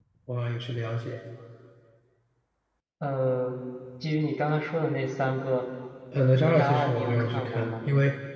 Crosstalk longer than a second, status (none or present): present